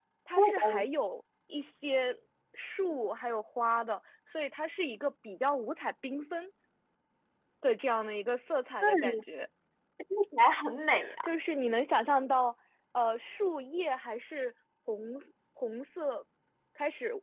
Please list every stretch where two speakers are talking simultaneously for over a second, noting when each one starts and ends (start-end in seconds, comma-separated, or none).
none